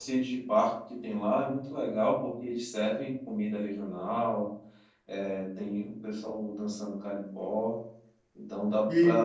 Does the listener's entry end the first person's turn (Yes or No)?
Yes